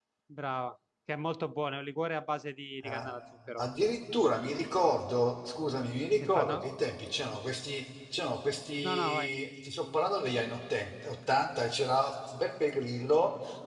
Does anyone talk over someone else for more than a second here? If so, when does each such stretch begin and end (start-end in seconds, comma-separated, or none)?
none